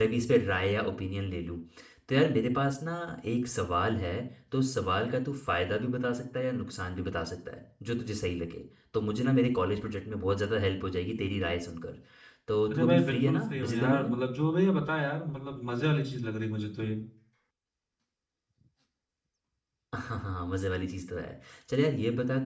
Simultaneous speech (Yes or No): Yes